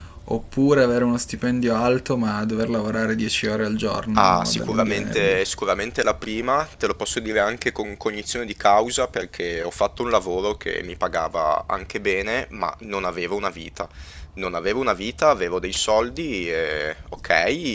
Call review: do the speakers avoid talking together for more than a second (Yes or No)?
No